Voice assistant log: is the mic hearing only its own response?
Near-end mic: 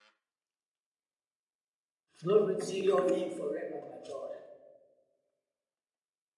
No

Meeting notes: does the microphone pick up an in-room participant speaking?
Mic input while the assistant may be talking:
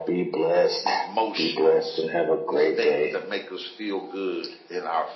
No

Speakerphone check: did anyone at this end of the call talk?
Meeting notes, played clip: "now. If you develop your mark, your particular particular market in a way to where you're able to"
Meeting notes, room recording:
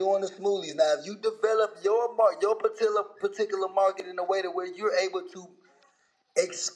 No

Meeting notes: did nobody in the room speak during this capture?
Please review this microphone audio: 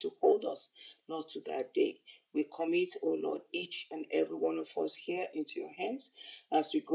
Yes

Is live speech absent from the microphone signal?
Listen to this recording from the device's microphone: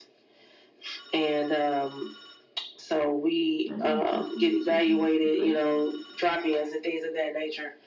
No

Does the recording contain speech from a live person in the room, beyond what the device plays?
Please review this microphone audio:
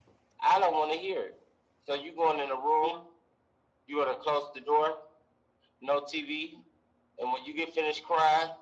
No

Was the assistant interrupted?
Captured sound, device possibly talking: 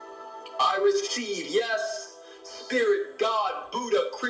No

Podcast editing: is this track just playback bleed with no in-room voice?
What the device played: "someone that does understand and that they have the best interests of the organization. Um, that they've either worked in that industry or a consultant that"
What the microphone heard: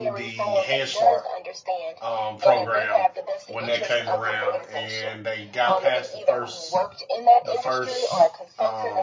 No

